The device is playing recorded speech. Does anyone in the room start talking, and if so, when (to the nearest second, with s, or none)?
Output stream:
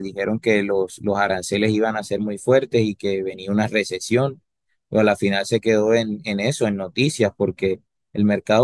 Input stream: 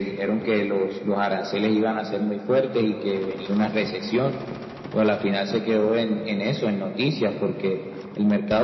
none